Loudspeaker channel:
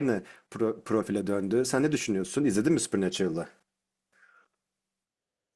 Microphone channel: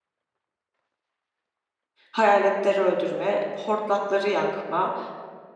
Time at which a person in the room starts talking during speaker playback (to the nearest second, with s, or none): 2 s